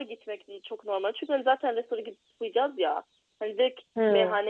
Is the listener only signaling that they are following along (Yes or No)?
Yes